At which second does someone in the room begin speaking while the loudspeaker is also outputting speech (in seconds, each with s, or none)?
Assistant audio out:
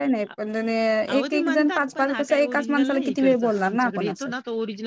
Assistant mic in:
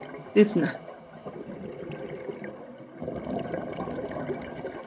0.3 s